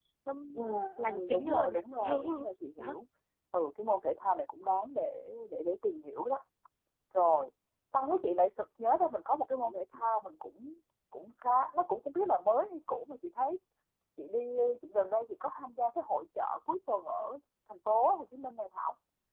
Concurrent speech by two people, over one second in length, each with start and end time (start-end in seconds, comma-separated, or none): 1.0-2.4